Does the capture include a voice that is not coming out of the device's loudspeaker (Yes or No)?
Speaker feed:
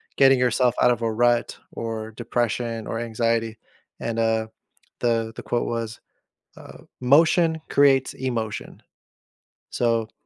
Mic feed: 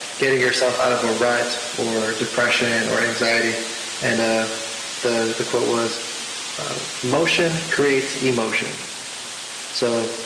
No